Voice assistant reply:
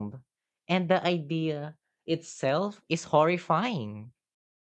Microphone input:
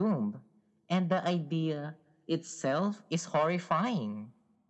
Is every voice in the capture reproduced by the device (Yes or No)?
Yes